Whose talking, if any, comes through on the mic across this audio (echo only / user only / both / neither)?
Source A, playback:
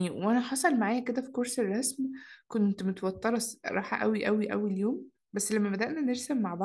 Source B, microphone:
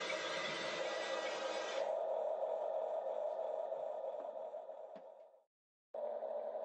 neither